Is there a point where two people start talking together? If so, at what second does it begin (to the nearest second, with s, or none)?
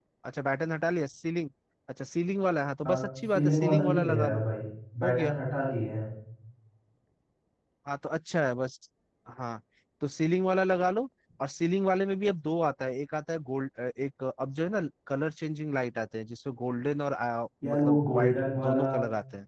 3 s